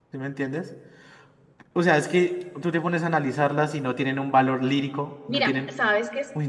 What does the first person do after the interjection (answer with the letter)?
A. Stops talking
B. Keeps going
A